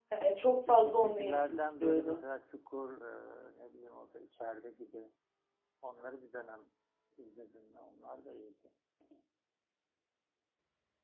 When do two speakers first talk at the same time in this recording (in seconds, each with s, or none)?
0.7 s